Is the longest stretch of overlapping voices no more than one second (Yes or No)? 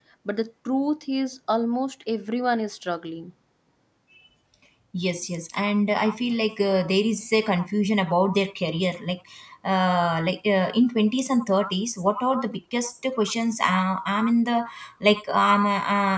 Yes